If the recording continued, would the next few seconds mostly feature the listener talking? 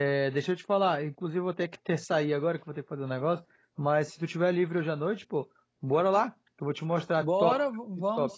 Yes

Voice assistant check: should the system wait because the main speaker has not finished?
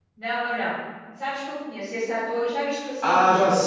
No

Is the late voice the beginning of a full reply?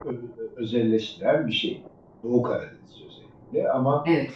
No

